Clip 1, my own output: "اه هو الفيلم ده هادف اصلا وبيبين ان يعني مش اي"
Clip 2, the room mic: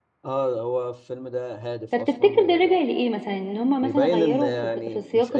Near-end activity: present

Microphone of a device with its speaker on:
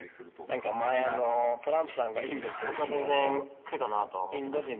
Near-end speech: present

